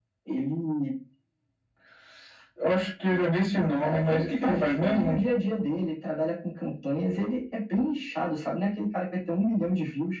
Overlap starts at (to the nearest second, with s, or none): 4 s